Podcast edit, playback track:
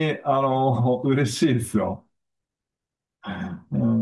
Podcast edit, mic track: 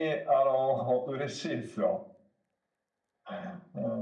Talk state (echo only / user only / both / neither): echo only